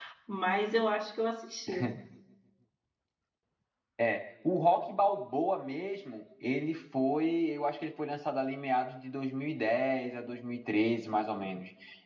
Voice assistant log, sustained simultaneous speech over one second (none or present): none